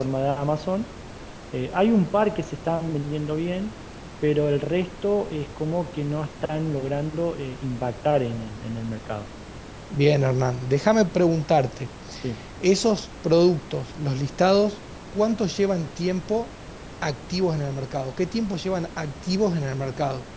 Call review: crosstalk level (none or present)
none